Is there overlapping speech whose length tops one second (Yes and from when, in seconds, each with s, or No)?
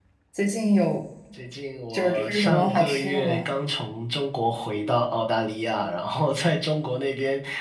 Yes, from 1.9 s